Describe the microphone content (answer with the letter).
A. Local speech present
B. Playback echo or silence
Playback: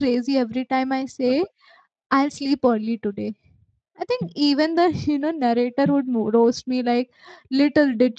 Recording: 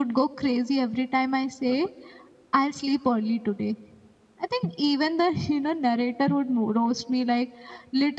B